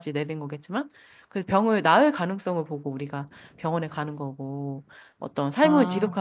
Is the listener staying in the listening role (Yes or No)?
Yes